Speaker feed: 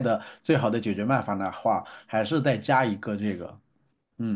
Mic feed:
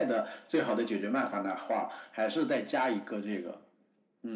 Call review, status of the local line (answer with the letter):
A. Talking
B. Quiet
B